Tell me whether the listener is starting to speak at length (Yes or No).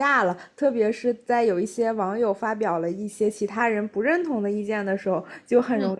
No